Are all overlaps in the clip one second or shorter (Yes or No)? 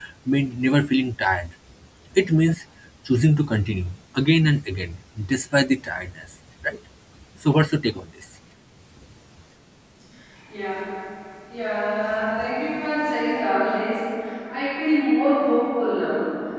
Yes